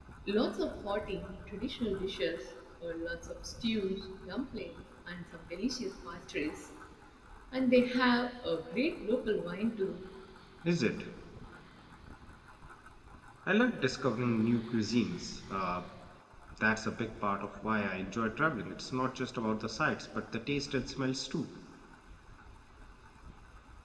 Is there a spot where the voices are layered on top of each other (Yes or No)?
No